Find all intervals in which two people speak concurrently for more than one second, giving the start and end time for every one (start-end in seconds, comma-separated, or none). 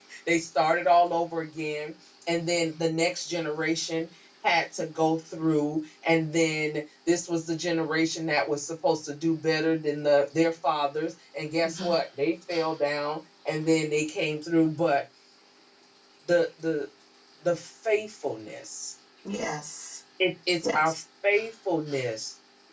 none